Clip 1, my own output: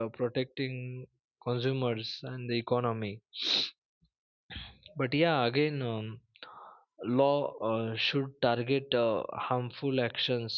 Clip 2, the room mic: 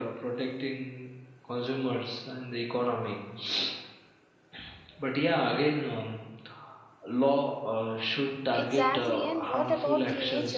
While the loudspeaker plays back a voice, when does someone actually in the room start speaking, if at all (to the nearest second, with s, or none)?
9 s